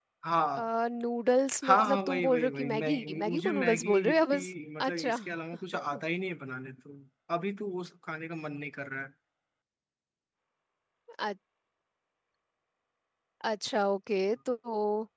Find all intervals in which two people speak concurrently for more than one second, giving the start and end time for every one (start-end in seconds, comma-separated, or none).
1.7-4.5